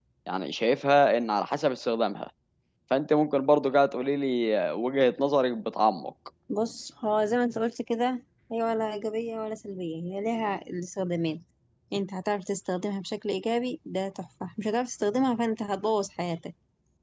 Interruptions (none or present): none